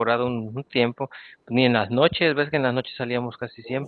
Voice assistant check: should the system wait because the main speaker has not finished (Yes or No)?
No